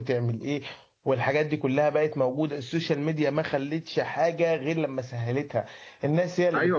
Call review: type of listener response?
taking over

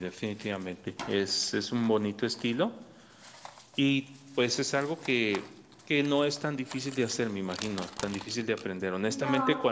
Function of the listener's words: listening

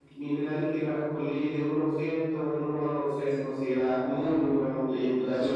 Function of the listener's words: taking over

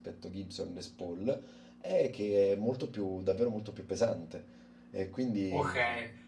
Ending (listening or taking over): taking over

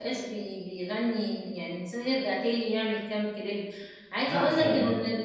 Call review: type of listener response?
listening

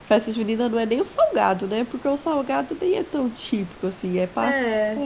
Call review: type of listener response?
listening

